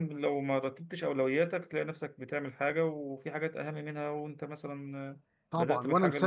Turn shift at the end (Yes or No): Yes